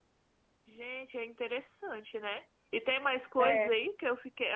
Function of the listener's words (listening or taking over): listening